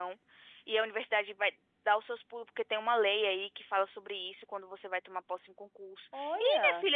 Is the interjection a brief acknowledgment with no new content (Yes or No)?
Yes